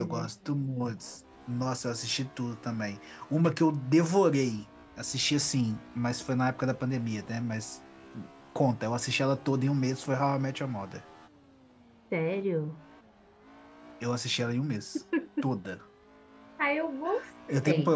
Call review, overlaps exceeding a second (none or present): none